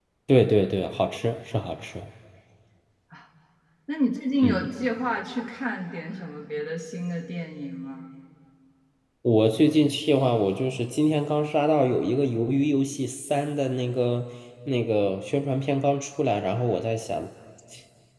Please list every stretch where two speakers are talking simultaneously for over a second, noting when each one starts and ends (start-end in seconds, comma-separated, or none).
none